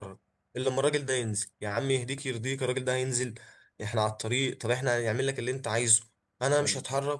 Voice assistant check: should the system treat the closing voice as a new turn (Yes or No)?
No